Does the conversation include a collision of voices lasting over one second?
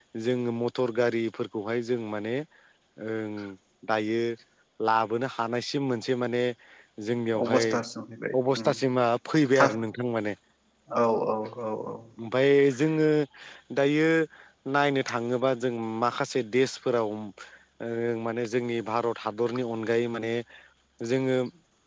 No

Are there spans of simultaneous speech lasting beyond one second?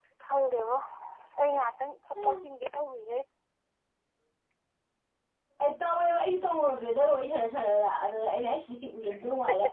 No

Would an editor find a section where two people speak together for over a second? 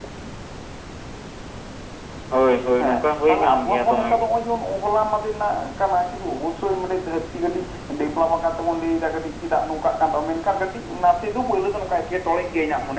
Yes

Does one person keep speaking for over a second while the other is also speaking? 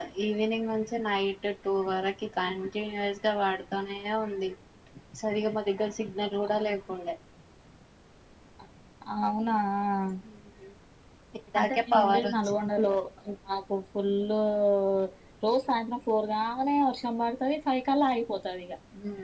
Yes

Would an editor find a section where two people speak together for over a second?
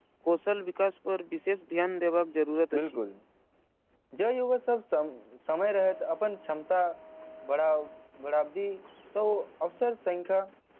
No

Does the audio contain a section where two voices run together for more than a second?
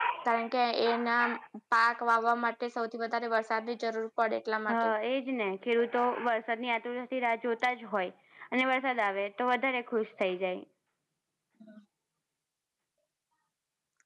No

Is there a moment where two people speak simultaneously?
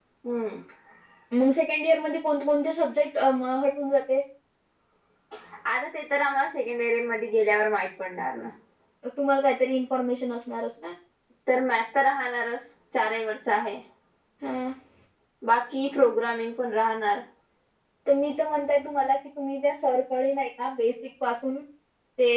No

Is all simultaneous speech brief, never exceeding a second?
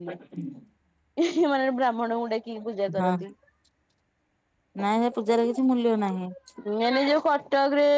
Yes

